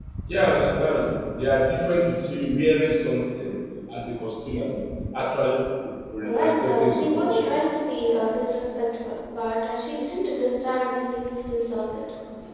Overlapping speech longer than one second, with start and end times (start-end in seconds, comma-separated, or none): 6.2-7.5